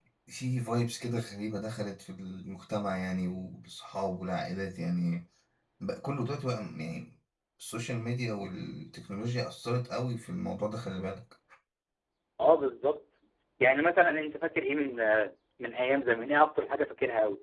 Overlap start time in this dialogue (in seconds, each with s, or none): none